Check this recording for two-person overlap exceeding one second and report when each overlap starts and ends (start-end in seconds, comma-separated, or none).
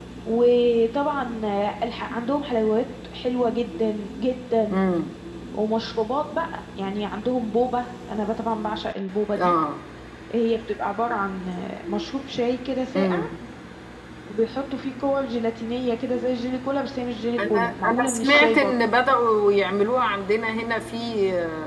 17.5-18.7